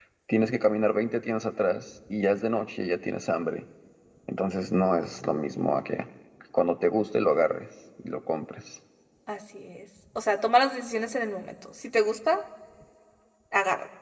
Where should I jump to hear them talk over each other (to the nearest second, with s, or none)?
none